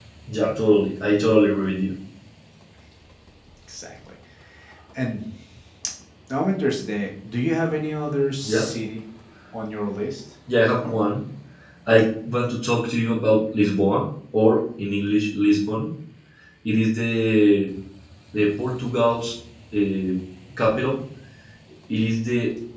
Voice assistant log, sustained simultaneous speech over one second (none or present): none